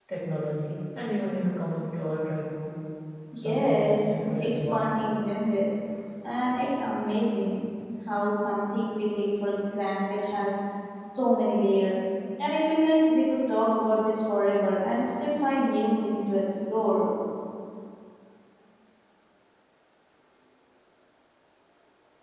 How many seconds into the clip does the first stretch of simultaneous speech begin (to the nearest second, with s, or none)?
3 s